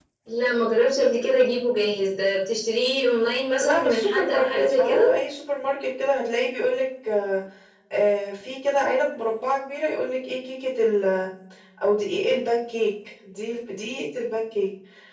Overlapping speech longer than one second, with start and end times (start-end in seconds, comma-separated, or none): 3.6-5.1